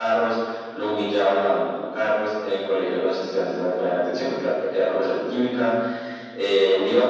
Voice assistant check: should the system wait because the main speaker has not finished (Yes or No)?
Yes